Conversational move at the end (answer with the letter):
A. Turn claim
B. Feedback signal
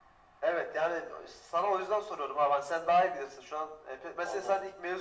B